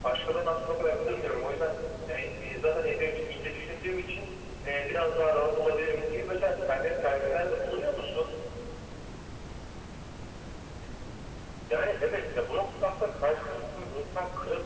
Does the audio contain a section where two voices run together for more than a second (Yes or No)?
No